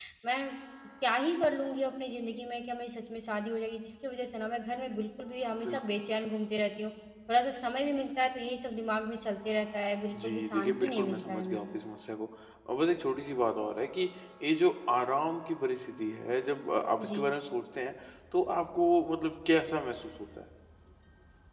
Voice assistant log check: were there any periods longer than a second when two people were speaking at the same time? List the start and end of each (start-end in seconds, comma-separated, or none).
10.2-11.7